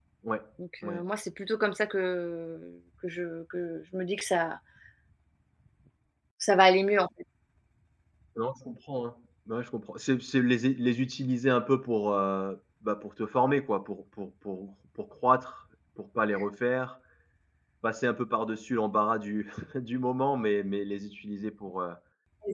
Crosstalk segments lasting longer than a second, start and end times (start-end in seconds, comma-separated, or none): none